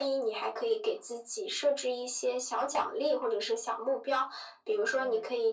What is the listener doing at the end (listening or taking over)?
listening